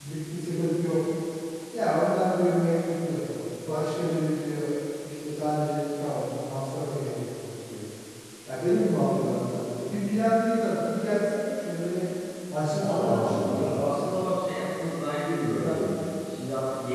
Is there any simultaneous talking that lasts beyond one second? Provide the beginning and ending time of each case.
12.8-14.1

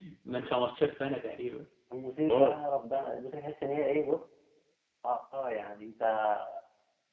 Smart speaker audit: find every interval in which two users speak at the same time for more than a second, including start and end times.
none

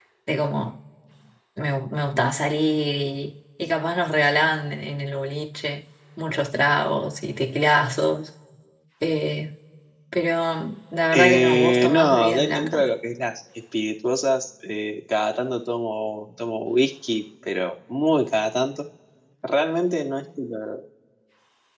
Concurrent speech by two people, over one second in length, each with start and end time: 11.1-12.9

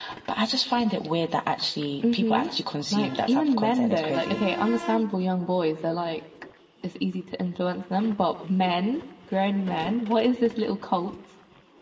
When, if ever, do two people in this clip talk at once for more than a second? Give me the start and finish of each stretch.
2.9-4.4

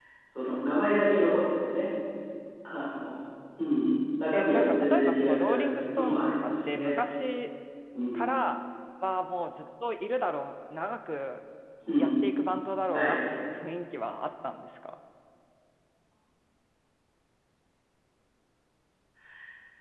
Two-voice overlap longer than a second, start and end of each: 4.3-7.0

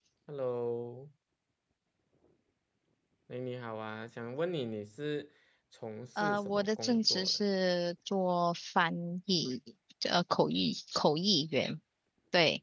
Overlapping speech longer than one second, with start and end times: 6.2-7.4

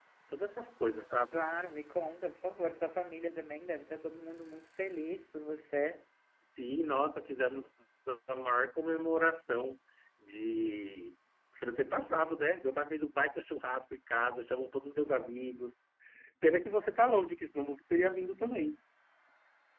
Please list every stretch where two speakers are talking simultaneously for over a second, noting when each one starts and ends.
none

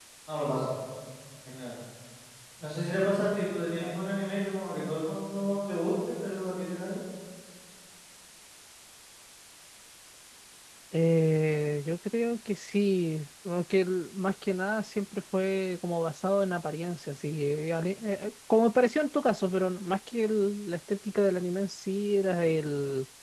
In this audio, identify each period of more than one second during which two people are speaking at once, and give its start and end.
none

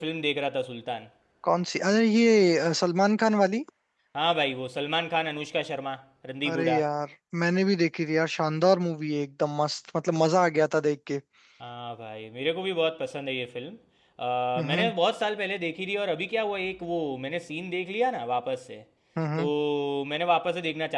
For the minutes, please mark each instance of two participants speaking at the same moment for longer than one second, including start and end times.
none

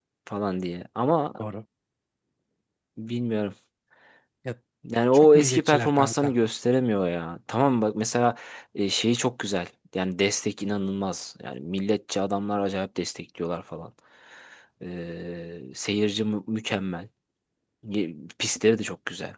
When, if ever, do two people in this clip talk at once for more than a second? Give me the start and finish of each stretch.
5.1-6.3

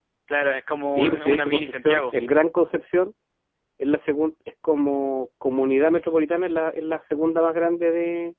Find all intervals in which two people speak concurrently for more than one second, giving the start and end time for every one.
0.9-2.1

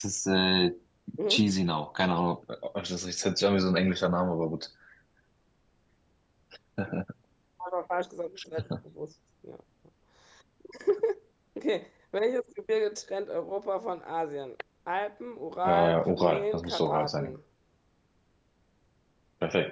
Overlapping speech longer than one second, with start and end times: 15.6-17.4

